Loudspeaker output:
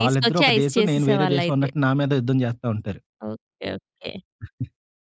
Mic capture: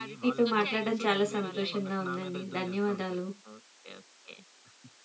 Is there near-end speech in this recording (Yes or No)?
Yes